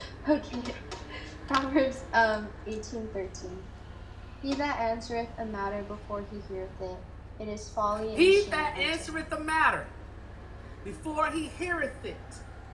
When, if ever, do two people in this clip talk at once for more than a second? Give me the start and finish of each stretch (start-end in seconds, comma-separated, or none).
8.2-9.3